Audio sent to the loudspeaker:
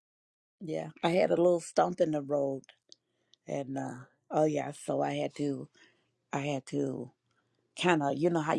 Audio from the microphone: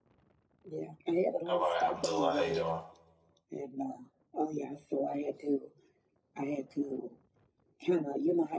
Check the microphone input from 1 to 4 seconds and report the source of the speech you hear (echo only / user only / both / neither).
both